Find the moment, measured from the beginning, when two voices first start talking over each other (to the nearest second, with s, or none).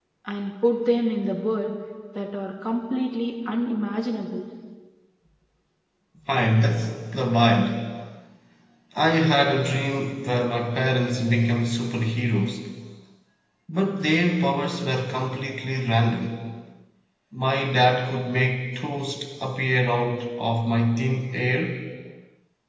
none